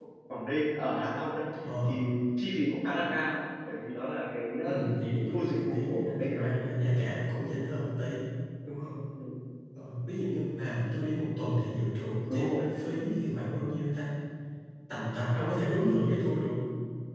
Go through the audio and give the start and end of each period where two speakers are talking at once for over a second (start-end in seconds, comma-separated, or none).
5.3-6.5